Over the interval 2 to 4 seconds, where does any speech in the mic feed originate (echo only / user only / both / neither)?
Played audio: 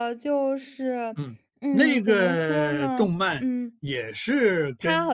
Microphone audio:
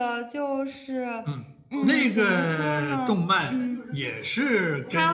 both